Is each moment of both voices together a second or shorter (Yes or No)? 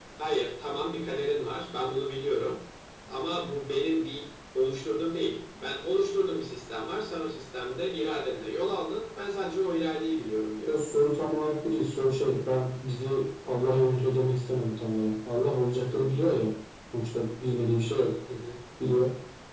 Yes